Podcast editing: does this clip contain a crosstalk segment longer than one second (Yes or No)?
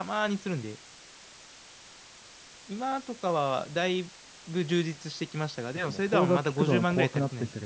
Yes